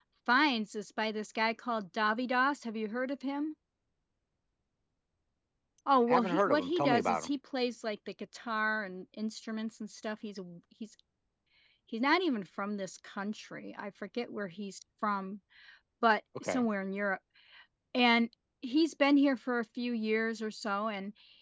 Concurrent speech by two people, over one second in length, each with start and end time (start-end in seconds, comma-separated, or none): 6.1-7.3